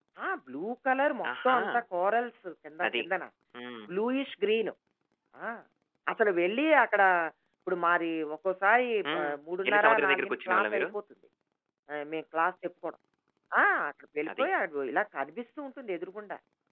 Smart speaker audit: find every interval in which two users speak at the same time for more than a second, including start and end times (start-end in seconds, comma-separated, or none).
9.7-10.9